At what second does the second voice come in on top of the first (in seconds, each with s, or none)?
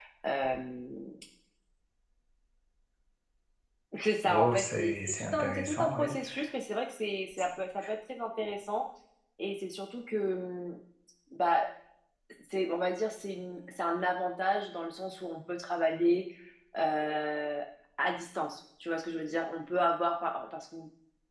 4.2 s